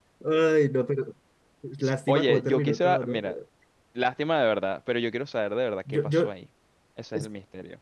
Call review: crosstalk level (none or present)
present